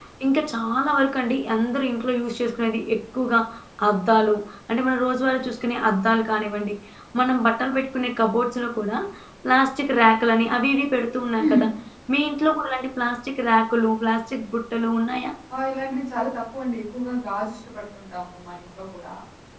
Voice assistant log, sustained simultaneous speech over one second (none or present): none